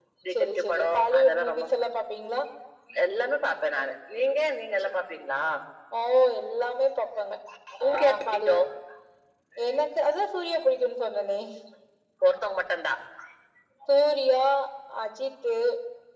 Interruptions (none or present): present